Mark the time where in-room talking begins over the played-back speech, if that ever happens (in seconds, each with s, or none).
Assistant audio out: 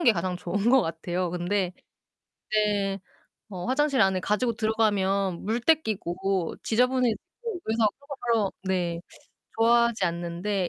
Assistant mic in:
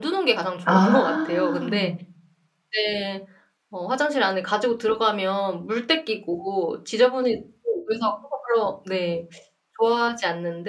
0.7 s